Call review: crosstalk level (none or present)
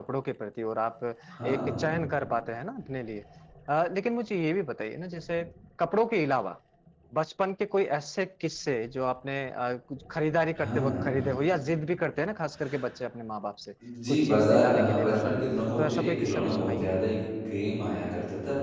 present